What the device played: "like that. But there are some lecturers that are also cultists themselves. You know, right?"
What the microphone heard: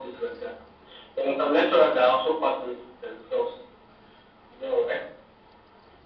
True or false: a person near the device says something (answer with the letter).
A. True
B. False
B